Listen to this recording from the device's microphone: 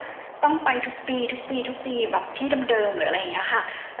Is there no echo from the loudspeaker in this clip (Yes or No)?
No